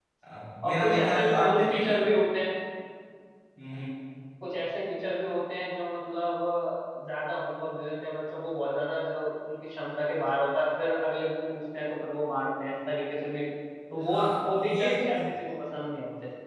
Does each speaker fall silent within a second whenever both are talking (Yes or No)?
No